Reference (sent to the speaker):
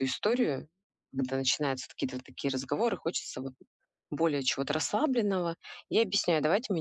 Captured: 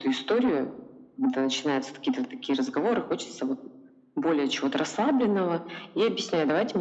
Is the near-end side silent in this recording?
Yes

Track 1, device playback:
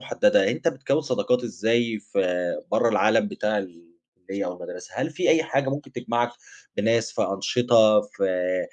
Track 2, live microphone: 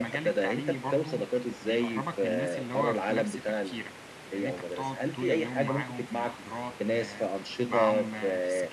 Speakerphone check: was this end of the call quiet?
No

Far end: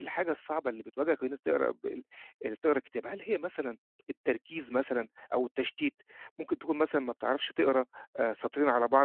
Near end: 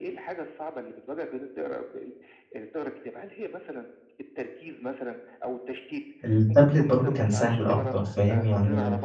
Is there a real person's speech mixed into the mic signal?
Yes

